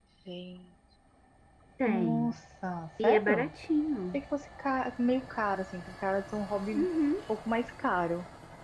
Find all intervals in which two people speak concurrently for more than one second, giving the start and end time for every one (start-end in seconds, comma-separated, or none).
none